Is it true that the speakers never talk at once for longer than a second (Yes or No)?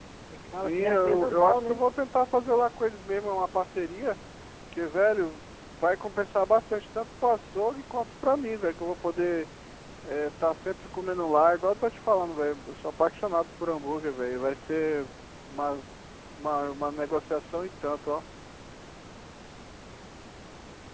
No